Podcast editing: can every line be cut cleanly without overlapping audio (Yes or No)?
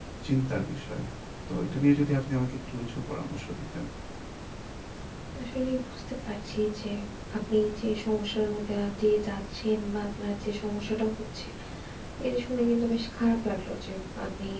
Yes